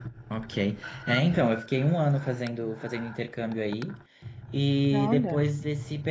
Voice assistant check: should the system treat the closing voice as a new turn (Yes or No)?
No